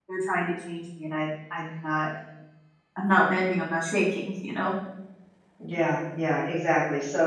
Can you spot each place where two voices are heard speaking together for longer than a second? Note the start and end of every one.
none

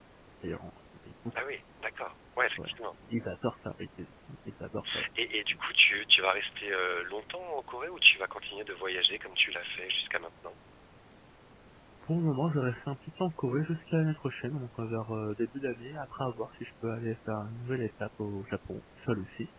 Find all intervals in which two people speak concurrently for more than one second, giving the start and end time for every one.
none

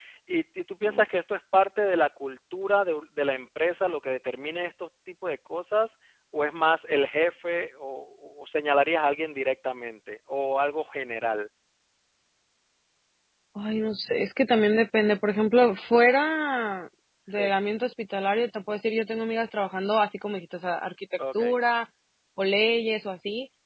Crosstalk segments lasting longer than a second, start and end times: none

